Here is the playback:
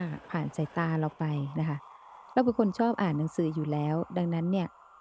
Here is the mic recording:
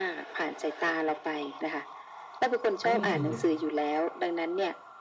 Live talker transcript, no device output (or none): เพราะจริงๆเนี่ย